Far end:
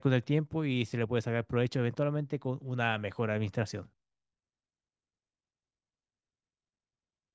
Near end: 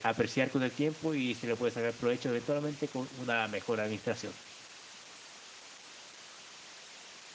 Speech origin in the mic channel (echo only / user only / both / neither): echo only